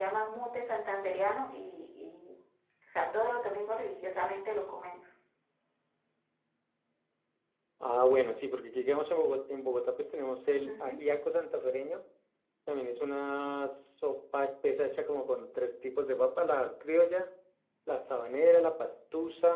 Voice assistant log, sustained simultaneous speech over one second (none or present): none